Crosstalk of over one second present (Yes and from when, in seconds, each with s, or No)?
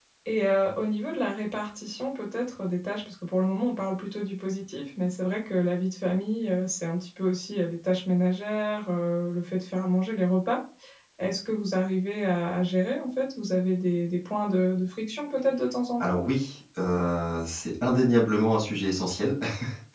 No